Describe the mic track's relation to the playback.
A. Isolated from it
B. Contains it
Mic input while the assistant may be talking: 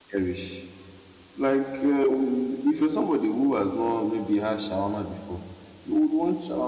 A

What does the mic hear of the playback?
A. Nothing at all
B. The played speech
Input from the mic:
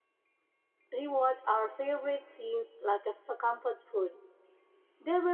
A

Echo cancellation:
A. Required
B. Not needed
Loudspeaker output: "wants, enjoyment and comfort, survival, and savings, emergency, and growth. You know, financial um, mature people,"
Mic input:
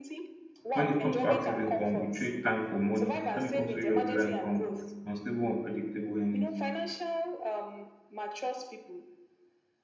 A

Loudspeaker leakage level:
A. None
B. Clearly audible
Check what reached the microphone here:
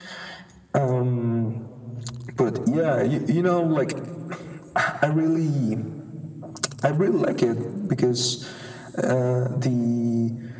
B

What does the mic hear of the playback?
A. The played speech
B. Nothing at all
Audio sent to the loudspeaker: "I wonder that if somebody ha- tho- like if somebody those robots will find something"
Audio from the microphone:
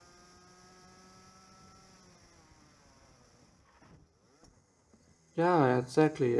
B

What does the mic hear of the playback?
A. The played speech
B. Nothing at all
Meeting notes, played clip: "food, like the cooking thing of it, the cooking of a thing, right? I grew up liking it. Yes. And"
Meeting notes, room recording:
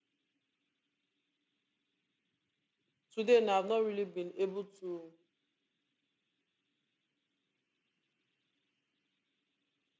B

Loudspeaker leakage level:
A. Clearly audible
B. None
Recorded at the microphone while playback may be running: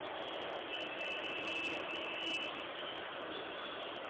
B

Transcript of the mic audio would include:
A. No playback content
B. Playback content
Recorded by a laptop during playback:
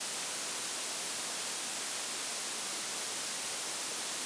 A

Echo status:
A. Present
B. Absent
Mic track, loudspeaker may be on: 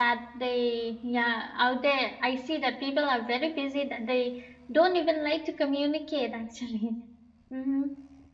B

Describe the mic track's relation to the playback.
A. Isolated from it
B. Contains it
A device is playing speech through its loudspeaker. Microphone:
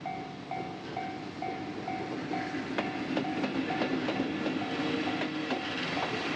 A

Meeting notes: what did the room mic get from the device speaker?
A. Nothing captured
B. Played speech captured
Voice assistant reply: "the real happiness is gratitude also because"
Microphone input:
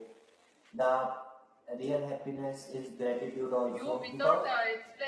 B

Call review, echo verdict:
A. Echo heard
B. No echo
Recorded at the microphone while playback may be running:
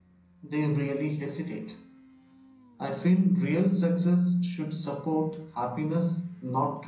B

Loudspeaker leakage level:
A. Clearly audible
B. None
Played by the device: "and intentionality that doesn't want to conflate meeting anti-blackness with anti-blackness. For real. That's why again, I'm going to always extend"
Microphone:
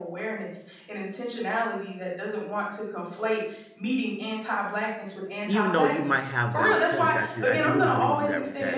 A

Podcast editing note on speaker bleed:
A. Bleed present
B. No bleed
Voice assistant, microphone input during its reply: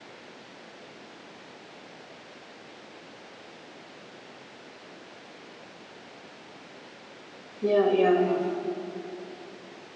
B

